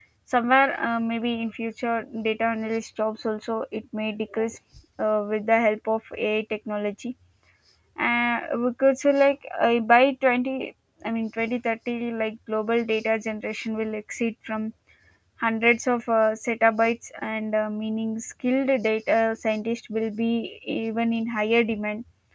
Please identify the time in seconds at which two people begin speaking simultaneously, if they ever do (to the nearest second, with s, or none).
none